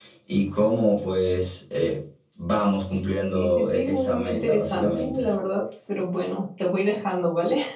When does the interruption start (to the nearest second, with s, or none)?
3 s